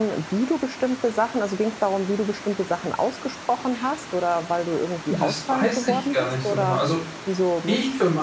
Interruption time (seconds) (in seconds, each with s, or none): 5.1 s